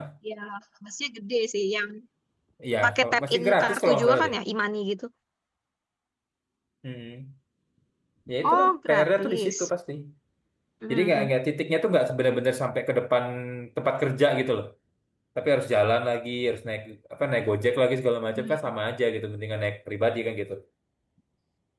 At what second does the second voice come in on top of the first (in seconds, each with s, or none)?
2.8 s